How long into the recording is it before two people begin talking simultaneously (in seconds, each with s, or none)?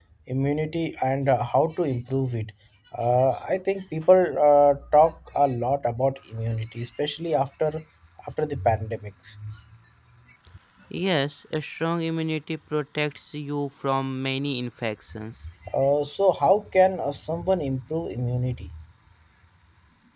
none